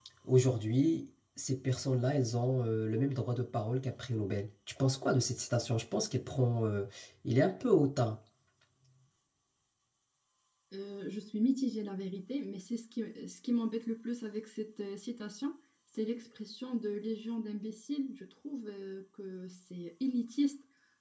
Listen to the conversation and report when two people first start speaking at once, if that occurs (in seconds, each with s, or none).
none